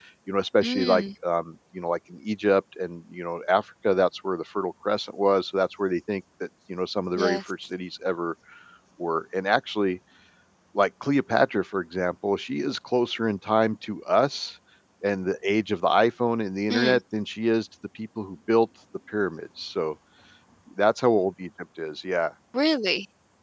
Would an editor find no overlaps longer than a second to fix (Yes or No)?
Yes